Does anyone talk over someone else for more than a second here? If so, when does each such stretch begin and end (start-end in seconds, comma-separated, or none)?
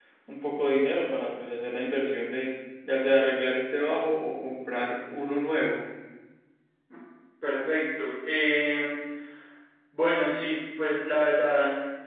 none